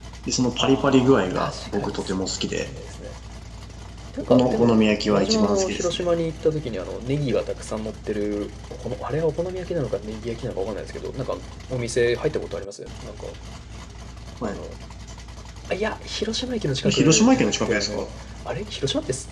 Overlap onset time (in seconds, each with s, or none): 0.6 s